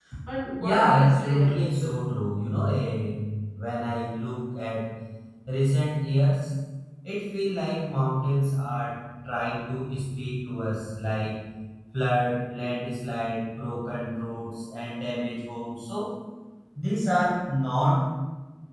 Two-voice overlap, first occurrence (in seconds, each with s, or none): 0.6 s